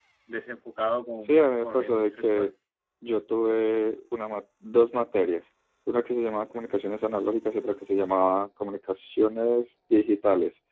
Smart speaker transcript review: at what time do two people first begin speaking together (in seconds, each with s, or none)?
1.3 s